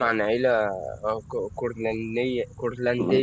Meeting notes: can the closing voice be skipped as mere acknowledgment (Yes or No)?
No